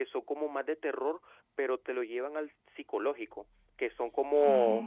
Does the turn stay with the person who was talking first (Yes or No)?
Yes